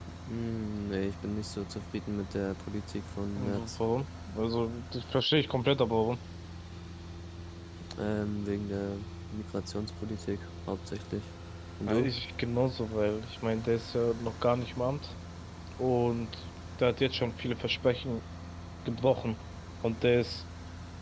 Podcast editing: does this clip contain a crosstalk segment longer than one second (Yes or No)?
No